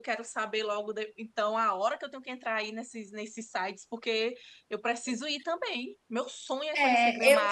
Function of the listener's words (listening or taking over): taking over